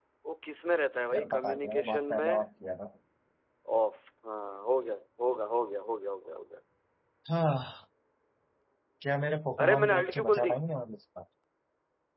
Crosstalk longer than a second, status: present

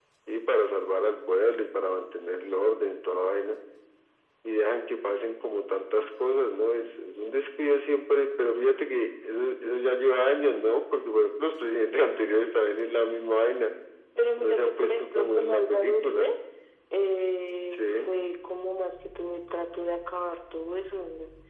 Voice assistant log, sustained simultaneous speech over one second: present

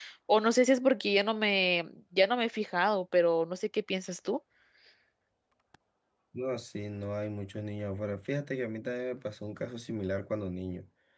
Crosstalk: none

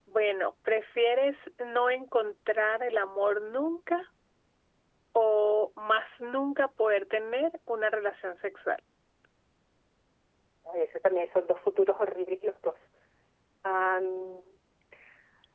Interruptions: none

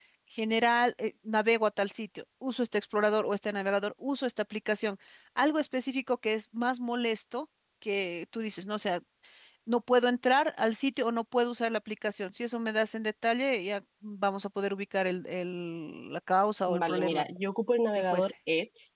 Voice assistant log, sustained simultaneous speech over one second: none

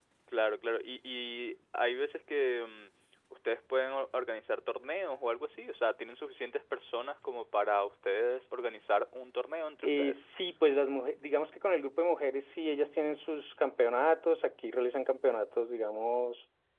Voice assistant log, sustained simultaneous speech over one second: none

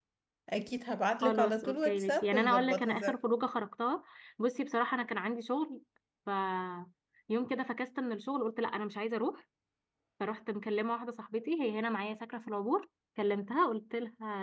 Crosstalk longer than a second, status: present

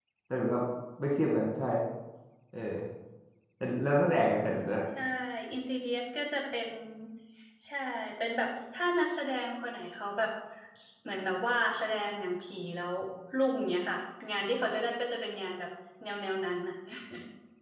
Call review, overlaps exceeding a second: none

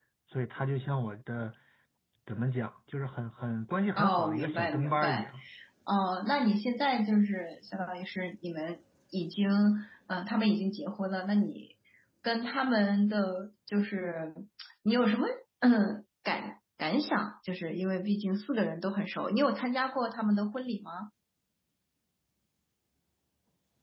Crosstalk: present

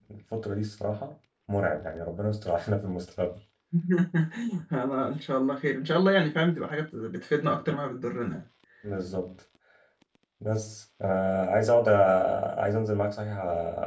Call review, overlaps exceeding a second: none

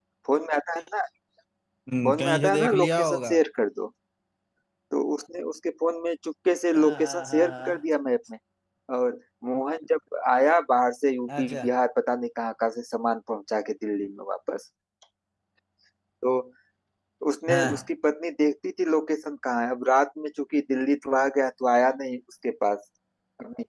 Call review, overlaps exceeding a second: present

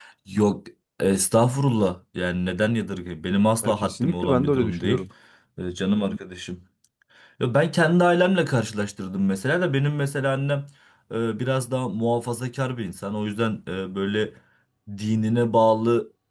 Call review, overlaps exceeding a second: present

